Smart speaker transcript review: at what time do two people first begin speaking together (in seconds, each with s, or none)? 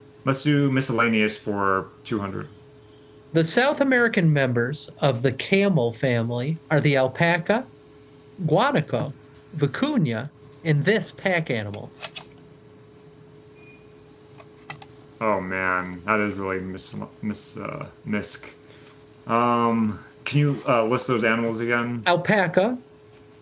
none